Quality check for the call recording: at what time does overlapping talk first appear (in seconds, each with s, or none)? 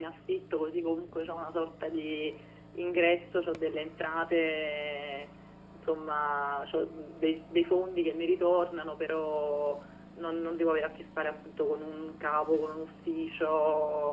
none